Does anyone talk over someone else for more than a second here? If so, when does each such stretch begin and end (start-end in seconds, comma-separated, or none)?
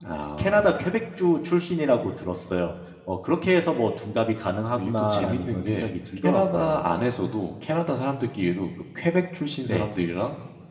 4.8-6.8